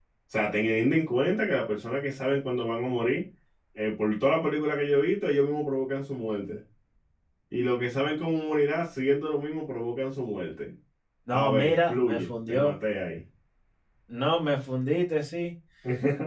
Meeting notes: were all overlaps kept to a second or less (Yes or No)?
No